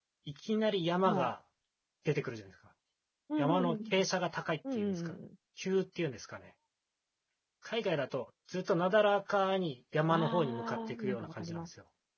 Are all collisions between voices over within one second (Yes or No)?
No